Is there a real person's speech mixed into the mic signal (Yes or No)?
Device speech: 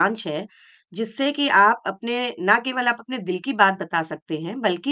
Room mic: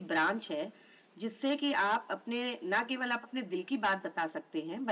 No